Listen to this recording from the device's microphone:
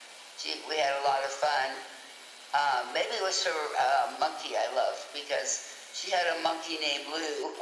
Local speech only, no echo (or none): none